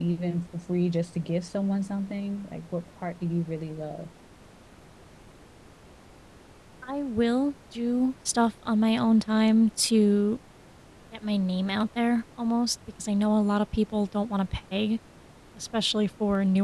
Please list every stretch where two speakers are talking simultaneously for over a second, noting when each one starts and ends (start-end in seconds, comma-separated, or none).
none